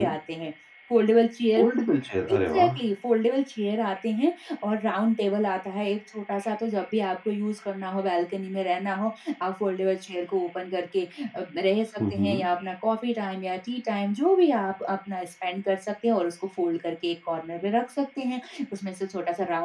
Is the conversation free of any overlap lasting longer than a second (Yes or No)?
Yes